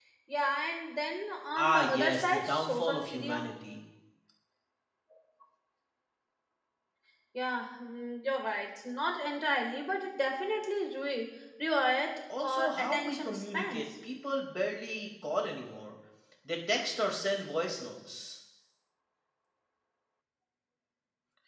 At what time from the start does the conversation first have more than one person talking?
1.6 s

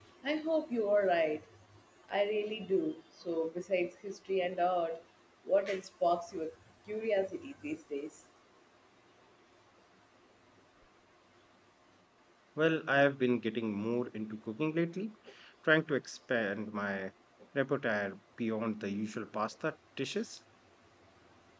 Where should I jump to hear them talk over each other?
none

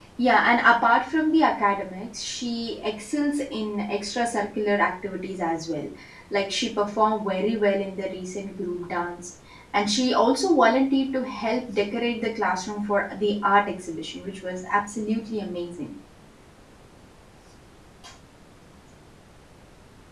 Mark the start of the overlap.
none

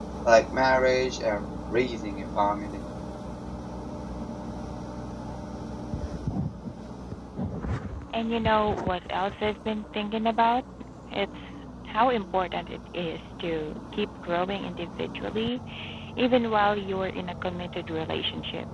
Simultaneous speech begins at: none

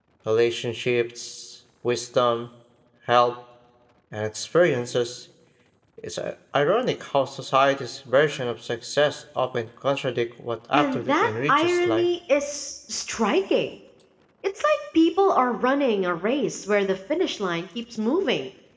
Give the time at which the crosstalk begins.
10.7 s

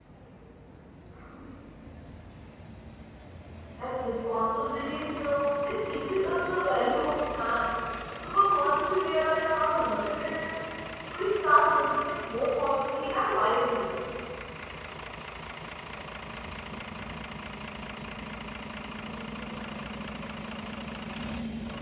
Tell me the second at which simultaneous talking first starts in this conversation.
none

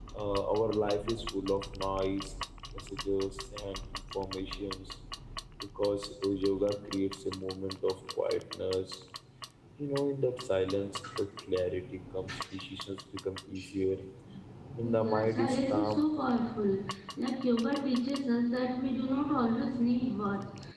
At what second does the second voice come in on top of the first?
14.8 s

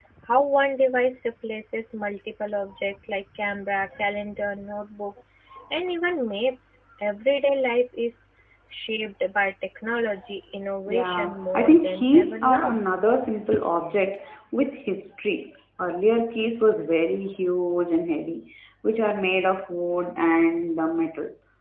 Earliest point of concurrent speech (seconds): 10.9 s

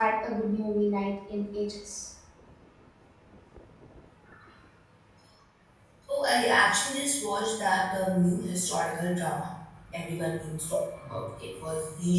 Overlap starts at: none

